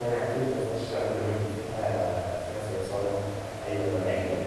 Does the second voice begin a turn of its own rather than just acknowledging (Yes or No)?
Yes